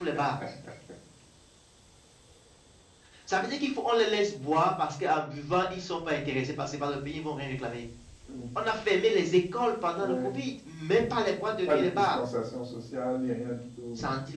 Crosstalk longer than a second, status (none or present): none